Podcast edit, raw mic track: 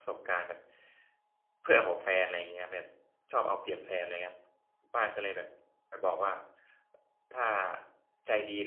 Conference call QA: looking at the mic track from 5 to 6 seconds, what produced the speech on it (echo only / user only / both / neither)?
user only